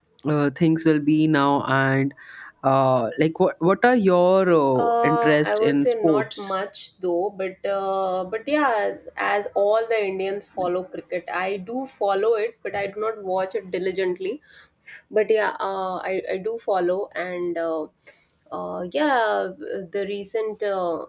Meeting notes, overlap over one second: present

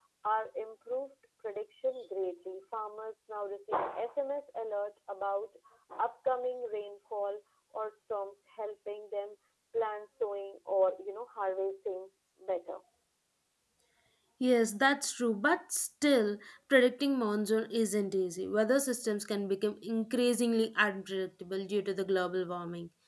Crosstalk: none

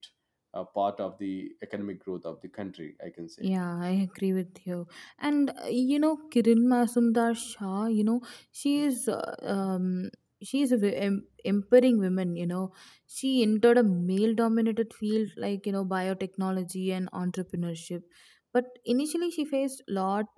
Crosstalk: none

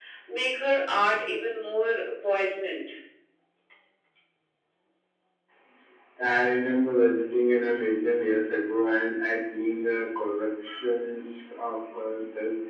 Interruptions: none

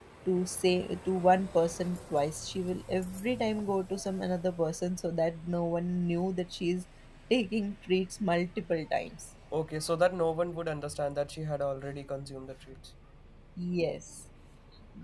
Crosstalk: none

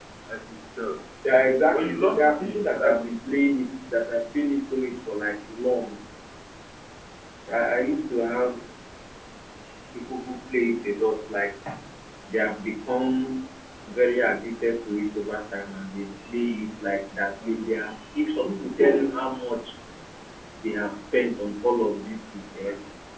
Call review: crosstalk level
present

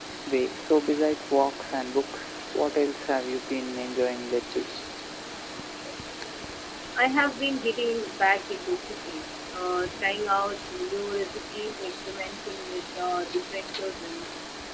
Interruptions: none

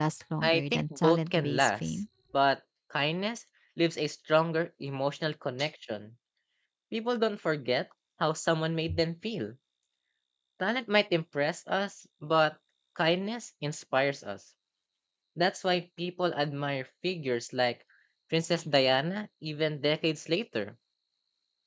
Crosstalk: present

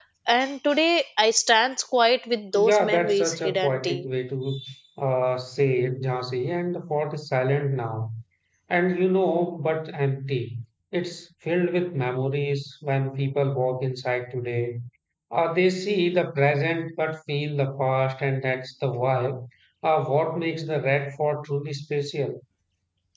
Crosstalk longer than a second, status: present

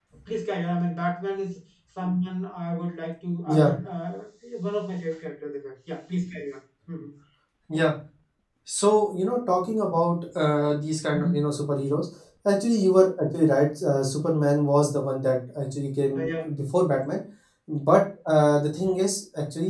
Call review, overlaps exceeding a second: none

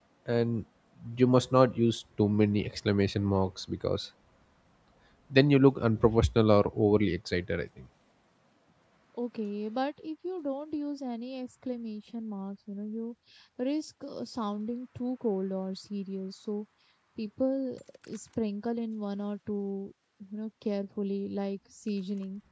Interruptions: none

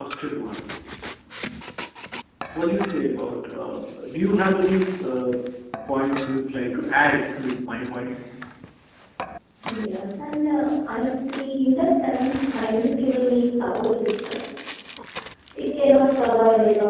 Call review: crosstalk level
none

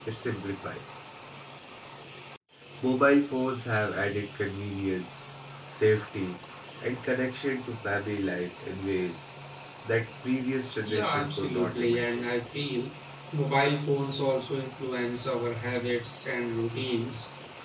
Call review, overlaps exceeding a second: present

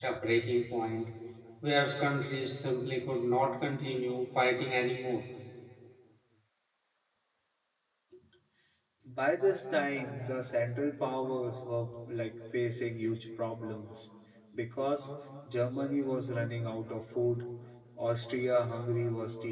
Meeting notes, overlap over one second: none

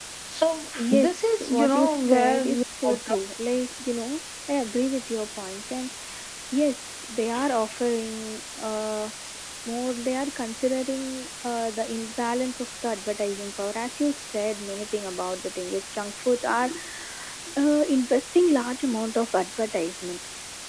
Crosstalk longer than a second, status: present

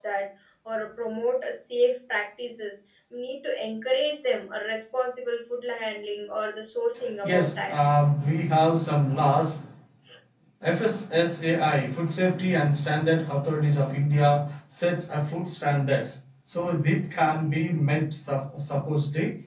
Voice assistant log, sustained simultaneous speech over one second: none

